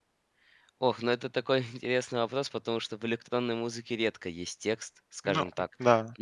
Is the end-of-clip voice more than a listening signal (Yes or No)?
No